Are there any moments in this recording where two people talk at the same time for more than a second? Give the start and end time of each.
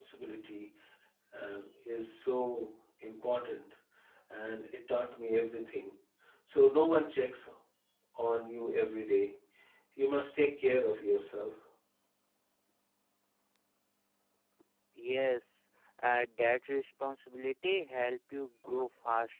none

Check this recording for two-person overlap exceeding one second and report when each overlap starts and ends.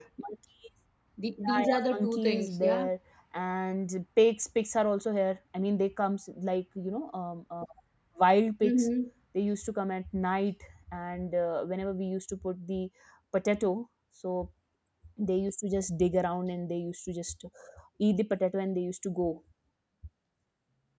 1.5-2.8

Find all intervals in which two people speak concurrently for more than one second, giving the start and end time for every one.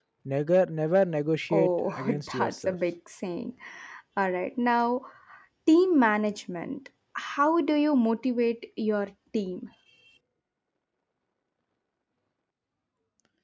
1.5-2.8

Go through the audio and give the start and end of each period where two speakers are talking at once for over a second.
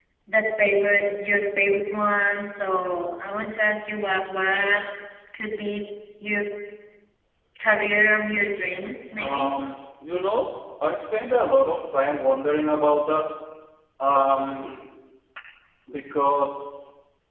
none

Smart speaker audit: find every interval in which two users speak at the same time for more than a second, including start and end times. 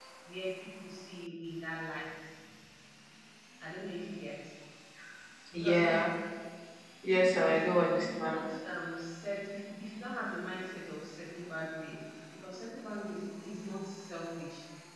7.0-8.4

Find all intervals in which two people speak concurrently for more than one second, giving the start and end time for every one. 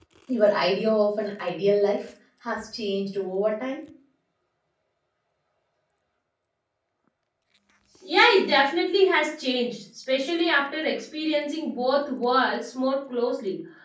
none

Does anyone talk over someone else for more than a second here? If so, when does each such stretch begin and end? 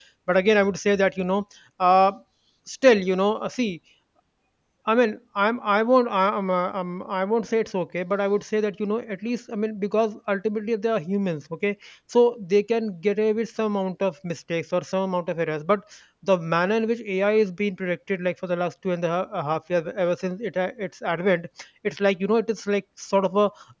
none

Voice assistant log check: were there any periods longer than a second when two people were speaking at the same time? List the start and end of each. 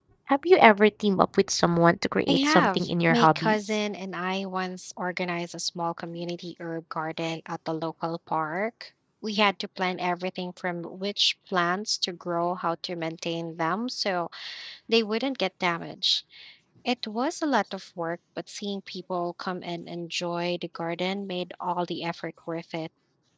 2.3-3.6

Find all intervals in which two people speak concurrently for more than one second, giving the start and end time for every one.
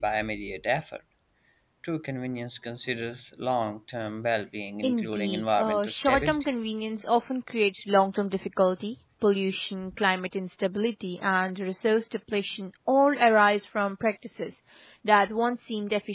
4.8-6.4

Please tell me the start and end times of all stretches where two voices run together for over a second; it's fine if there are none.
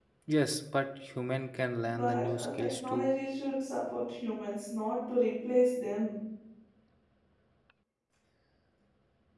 1.8-3.1

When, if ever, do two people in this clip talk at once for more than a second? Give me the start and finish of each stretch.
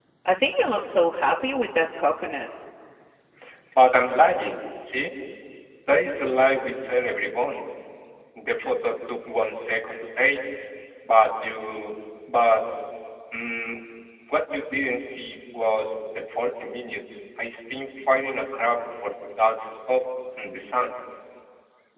none

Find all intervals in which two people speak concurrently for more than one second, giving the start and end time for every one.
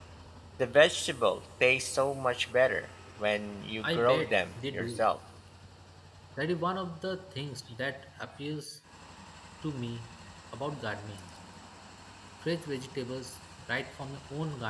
3.8-5.1

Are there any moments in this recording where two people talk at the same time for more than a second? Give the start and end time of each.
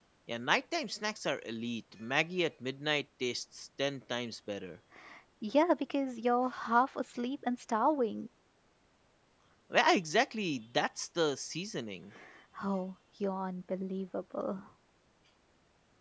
none

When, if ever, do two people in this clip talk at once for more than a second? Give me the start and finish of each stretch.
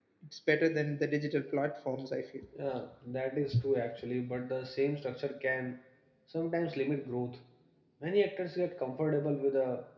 none

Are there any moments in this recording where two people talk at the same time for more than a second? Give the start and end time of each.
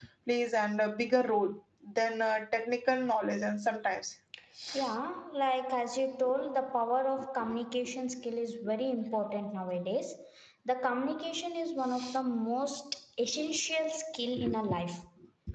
none

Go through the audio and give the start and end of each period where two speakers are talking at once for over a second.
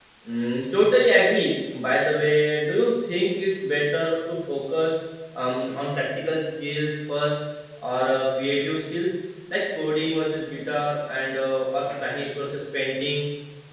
none

